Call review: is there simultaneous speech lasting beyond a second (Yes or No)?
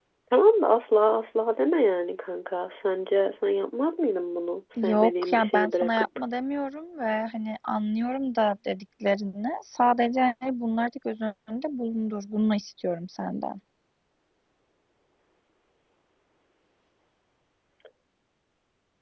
Yes